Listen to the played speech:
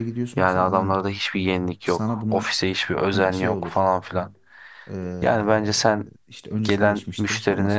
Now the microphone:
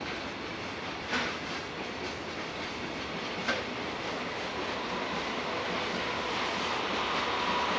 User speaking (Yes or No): No